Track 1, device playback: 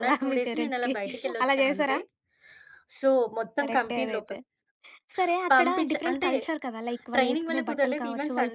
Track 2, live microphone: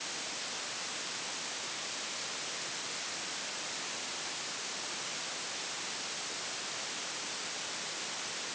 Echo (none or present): none